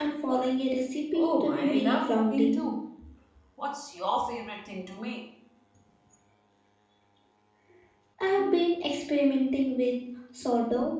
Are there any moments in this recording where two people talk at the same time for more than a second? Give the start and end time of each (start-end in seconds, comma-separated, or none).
1.1-2.6